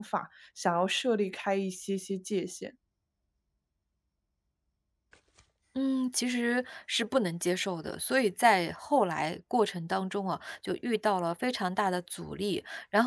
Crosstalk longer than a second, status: none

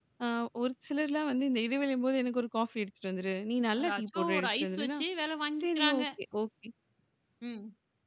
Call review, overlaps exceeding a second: present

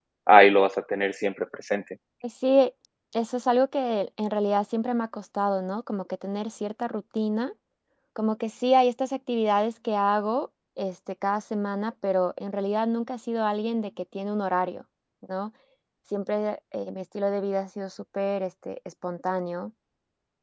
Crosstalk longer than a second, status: none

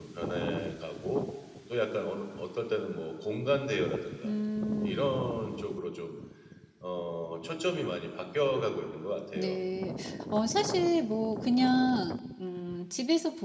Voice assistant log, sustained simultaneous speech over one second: none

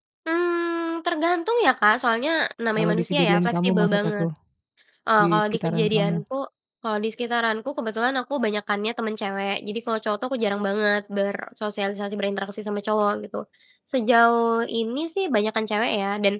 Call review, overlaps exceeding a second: present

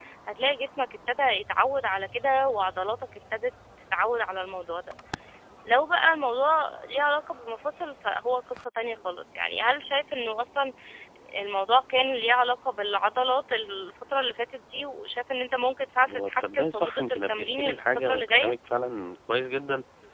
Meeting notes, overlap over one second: present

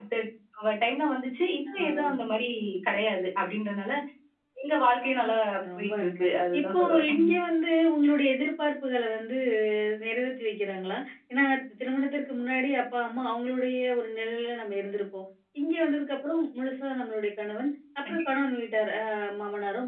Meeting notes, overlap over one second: present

